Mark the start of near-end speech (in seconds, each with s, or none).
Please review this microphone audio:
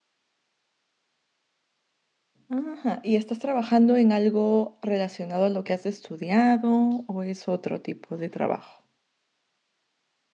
2.5 s